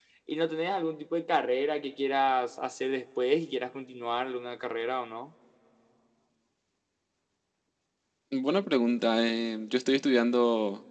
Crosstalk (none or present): none